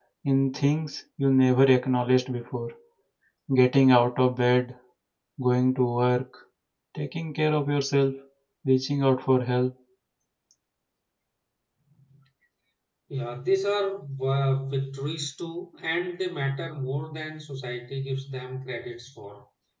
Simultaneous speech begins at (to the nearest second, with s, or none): none